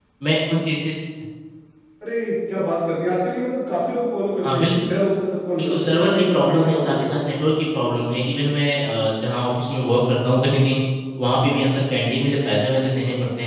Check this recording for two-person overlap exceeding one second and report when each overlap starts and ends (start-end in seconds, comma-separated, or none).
5.6-7.2